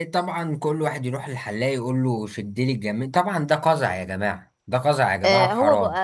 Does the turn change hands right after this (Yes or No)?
Yes